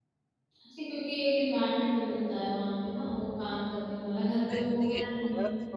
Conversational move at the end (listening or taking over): taking over